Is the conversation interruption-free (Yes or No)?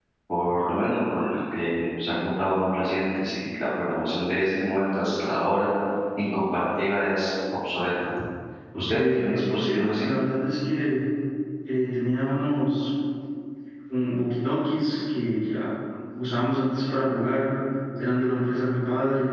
No